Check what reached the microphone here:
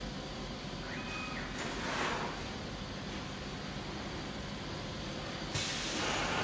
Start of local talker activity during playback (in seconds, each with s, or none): none